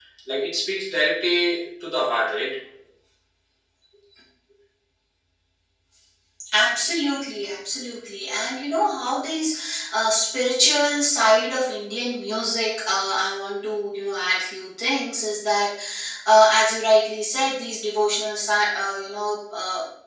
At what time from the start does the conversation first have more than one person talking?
none

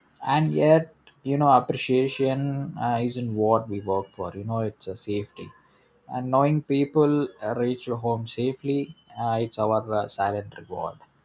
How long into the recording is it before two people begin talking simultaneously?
none

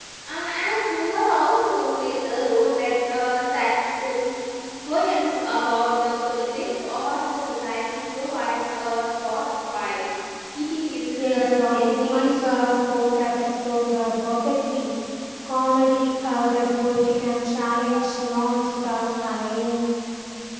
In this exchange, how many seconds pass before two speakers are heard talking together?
11 s

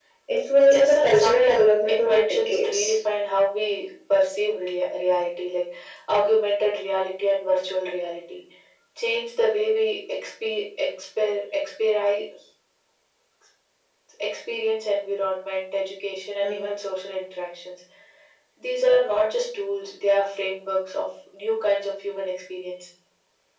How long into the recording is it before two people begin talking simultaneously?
1 s

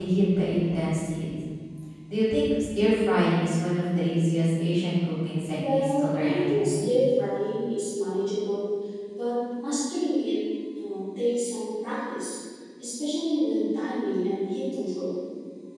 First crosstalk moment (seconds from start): 6 s

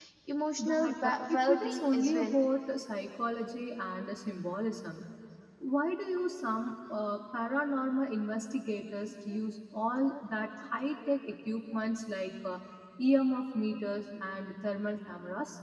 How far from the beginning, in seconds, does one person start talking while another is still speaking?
1 s

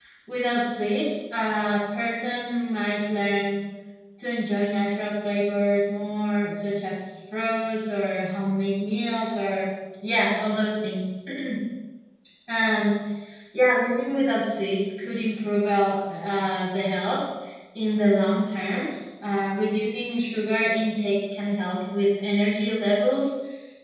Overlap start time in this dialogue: none

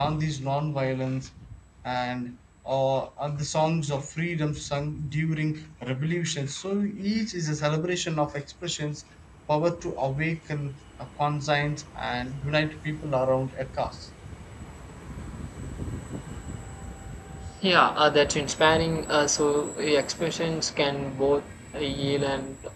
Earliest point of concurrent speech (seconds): none

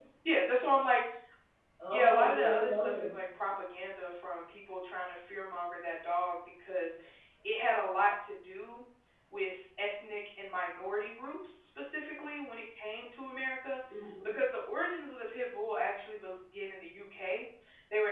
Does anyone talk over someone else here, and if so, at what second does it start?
2 s

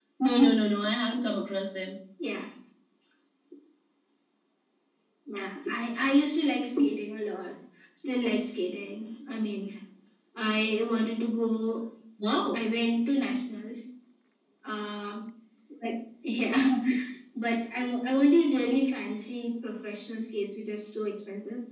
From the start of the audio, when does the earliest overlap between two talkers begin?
none

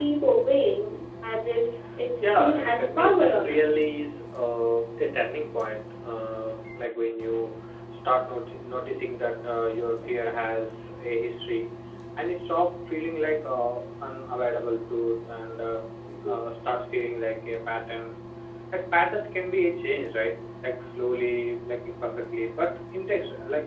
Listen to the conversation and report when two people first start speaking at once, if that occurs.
2 s

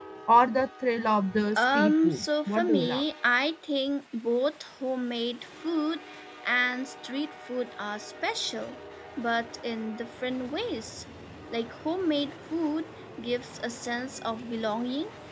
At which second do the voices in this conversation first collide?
2 s

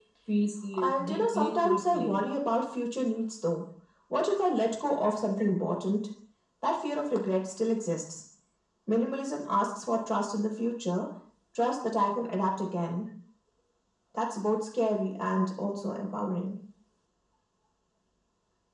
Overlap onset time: 1 s

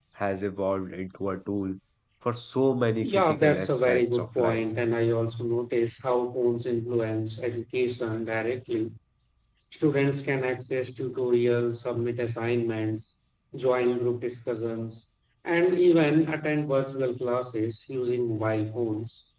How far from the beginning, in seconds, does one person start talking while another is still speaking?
3 s

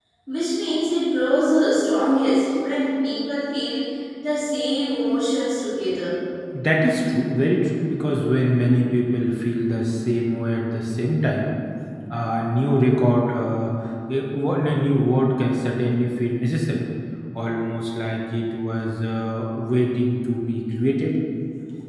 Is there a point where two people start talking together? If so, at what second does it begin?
none

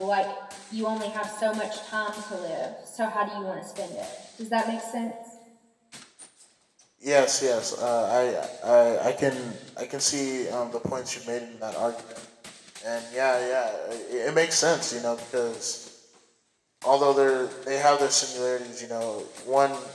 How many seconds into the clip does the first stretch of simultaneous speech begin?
none

